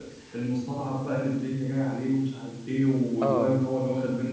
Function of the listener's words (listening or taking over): listening